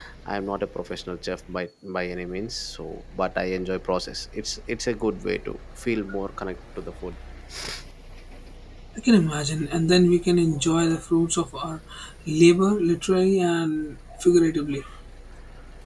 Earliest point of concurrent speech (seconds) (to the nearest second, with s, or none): none